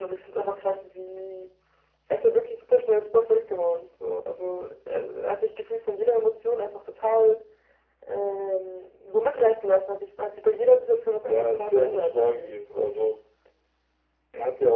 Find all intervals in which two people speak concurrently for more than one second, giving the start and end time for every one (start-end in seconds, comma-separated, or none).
11.3-12.5